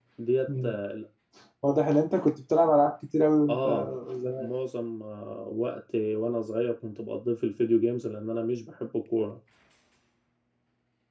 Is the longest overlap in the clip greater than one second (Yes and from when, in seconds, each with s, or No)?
No